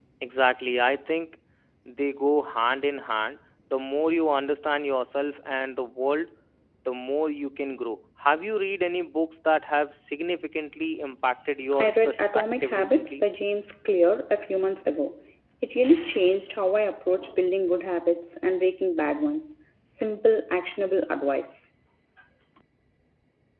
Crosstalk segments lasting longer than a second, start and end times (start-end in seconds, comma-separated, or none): 11.8-13.2